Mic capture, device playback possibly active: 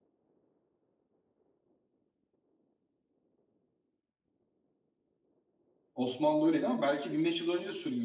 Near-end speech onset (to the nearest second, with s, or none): 6 s